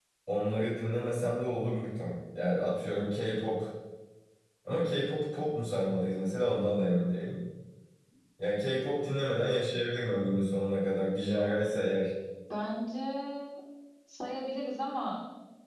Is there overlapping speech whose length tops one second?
No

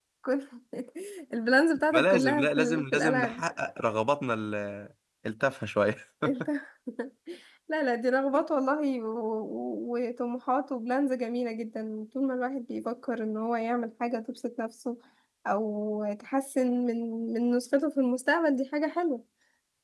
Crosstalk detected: Yes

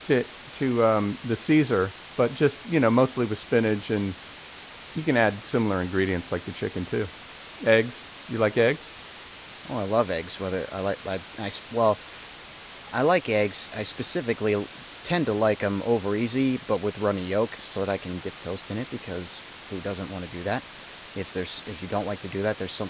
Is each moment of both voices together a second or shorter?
Yes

